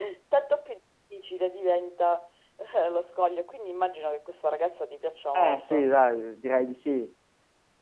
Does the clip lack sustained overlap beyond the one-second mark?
Yes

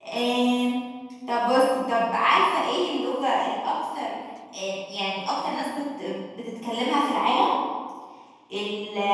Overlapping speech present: No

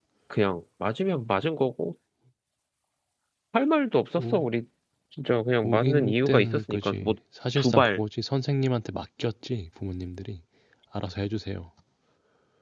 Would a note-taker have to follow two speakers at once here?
Yes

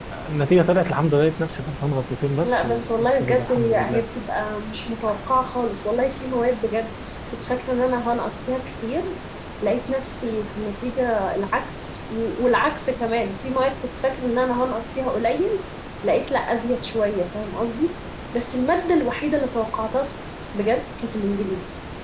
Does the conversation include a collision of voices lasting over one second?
Yes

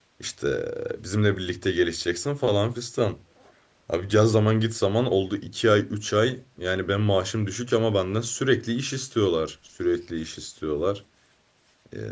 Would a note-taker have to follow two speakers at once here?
No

